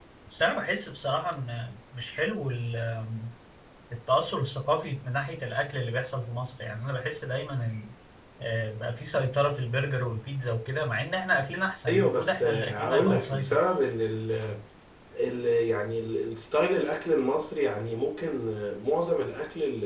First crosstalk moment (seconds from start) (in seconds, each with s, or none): 11.9 s